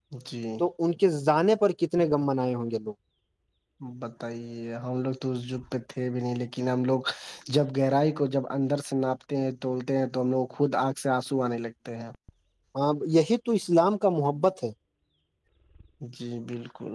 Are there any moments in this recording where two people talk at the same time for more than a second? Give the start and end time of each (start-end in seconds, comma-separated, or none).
none